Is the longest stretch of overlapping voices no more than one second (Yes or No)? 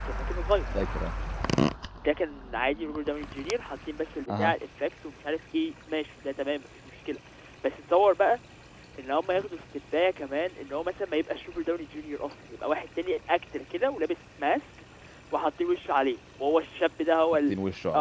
Yes